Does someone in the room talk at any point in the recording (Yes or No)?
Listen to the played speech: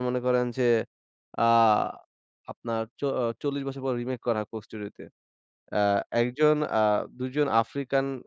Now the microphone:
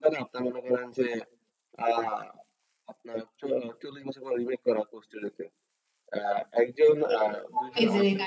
Yes